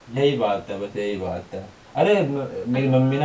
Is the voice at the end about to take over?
No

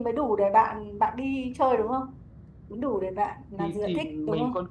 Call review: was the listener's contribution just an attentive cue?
No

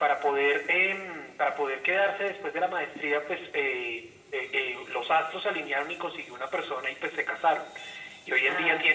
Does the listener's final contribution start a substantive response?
No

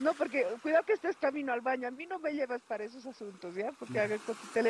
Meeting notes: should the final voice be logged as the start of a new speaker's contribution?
No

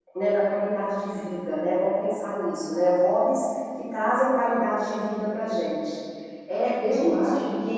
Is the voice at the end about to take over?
Yes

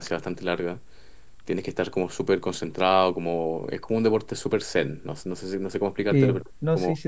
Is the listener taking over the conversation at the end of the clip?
Yes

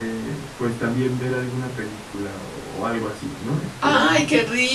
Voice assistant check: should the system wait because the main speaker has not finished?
No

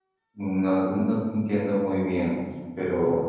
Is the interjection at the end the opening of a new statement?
Yes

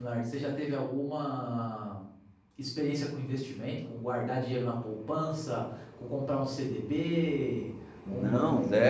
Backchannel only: No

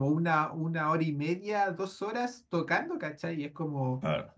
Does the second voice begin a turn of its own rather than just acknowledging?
No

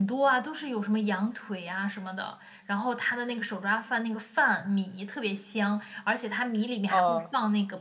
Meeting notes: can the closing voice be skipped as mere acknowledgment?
Yes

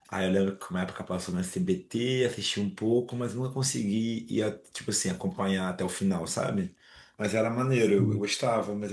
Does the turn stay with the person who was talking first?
Yes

